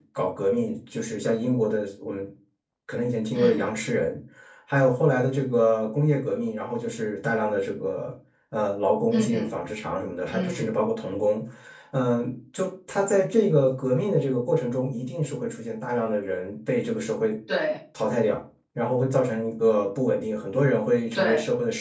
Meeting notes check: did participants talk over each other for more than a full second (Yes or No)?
No